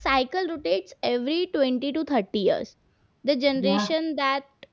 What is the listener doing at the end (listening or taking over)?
listening